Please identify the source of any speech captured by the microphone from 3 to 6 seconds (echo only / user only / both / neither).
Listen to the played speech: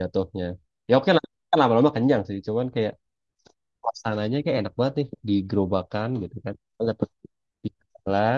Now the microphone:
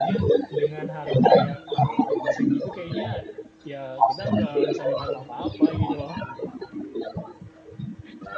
both